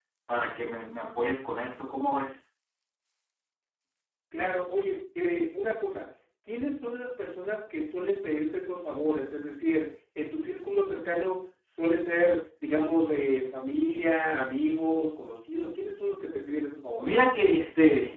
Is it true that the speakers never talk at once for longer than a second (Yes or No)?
Yes